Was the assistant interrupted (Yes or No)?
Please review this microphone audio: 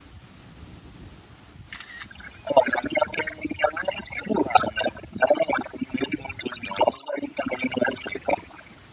No